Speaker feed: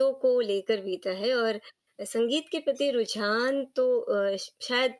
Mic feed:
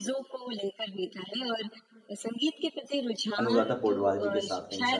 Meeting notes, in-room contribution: present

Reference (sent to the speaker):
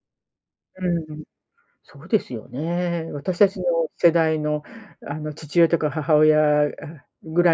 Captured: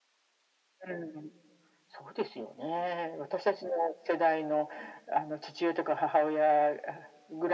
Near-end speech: none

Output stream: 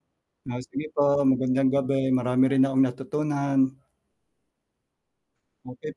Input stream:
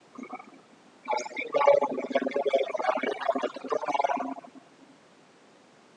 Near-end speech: none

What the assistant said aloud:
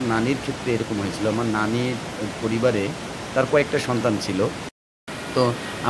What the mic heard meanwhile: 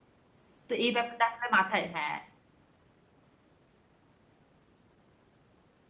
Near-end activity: present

